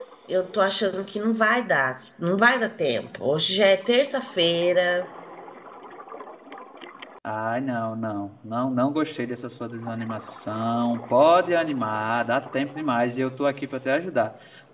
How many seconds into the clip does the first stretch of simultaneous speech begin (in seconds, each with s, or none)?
none